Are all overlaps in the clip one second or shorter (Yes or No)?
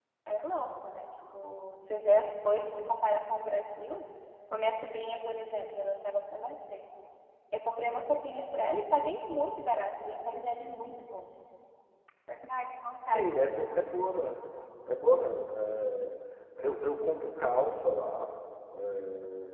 Yes